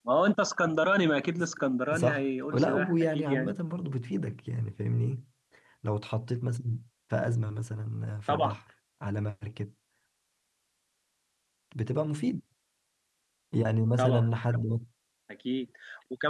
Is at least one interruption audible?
Yes, from 1.9 s

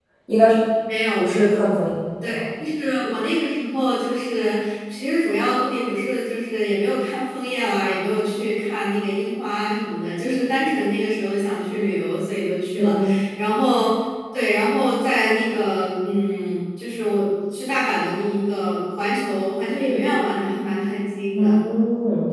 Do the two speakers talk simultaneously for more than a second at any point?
No

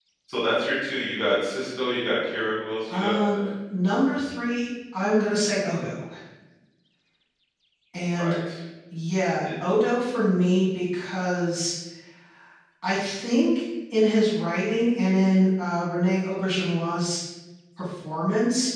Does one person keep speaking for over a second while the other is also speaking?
No

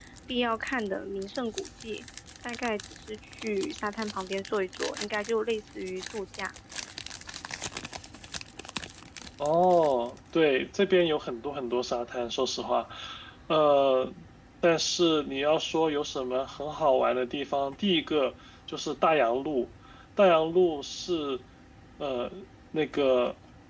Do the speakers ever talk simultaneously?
No

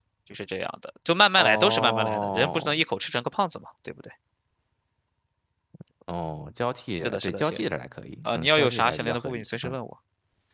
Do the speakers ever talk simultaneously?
Yes, from 1.4 s

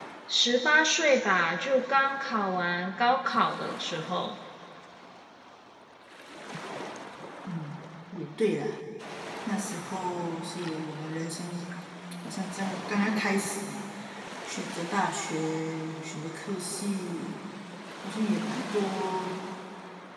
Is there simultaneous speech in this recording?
No

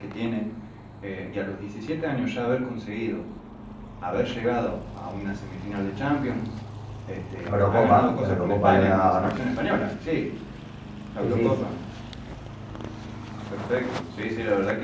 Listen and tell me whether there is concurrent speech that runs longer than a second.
Yes, from 7.5 s

